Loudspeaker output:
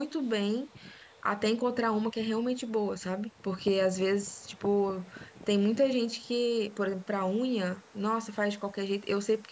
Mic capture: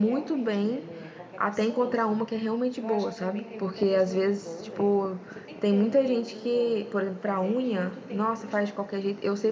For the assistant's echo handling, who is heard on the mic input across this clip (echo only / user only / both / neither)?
both